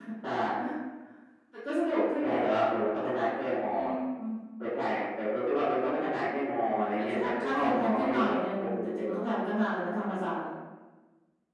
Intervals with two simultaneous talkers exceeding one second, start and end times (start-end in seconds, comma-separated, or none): 6.7-9.2